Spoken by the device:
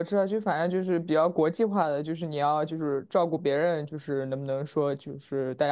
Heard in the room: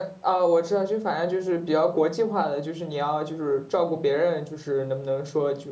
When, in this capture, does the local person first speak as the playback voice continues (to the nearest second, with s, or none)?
none